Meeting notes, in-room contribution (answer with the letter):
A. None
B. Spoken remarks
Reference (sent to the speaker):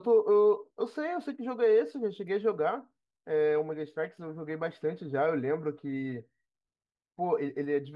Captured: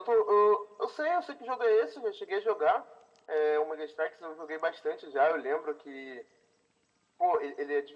A